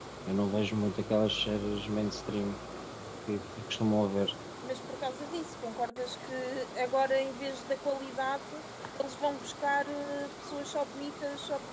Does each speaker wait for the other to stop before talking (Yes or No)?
Yes